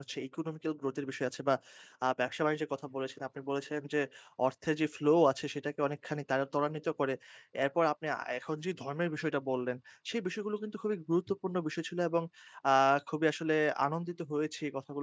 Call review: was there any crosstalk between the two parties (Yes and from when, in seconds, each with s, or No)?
No